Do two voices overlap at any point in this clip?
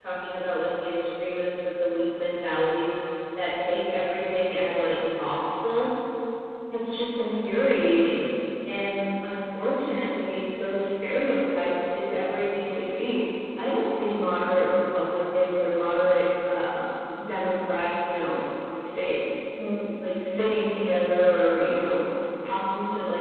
No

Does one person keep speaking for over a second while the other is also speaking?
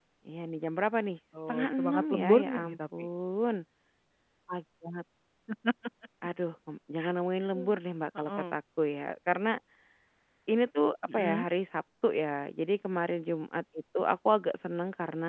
Yes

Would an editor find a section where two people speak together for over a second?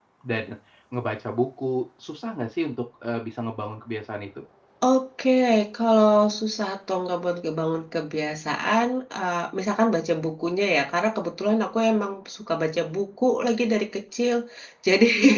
No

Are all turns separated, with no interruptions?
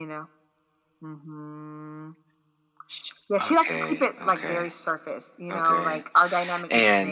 No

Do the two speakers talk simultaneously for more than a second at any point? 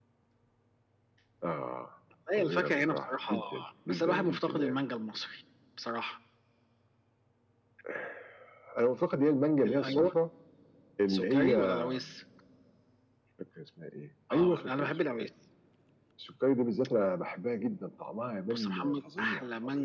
Yes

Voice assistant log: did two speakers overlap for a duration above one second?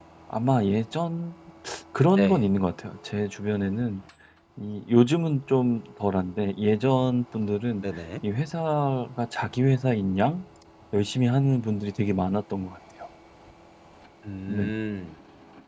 No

